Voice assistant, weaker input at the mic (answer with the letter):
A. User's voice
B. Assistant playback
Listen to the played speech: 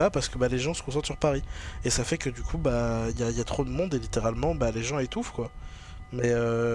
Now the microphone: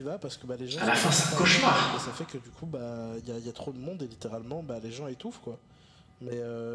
B